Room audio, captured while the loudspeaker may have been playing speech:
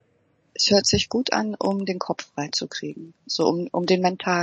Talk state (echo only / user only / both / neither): user only